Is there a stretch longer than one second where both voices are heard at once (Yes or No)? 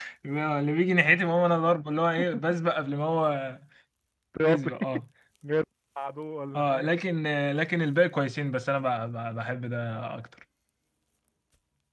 No